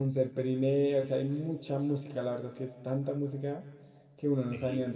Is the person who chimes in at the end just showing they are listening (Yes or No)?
No